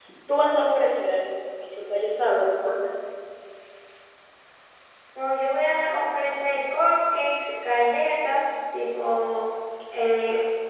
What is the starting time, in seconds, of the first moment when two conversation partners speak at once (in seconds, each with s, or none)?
none